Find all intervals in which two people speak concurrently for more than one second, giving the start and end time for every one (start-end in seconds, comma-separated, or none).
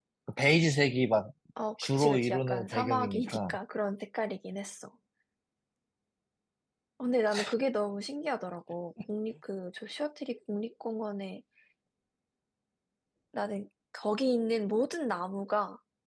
1.9-3.6